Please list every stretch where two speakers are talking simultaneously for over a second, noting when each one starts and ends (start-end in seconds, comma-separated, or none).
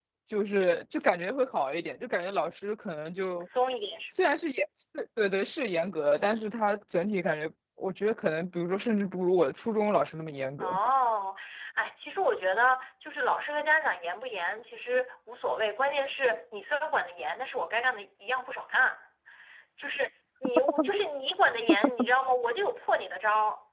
none